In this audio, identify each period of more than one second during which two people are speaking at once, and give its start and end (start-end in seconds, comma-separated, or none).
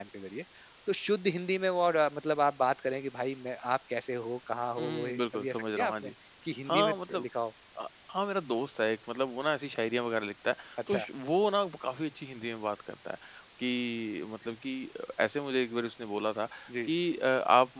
4.8-6.1